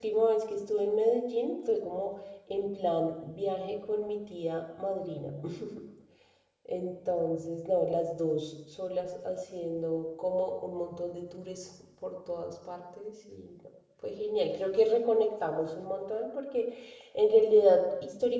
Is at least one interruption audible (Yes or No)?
No